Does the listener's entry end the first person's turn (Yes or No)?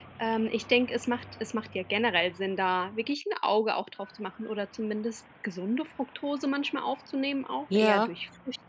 No